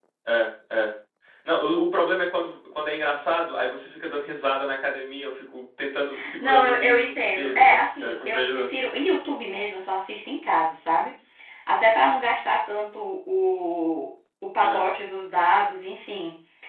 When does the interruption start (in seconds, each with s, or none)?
6.4 s